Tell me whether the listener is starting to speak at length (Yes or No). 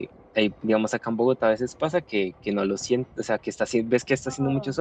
No